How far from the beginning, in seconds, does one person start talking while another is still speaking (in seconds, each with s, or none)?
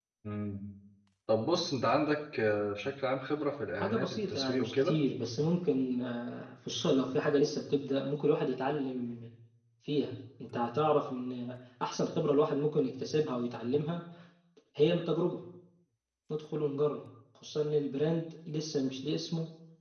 3.8 s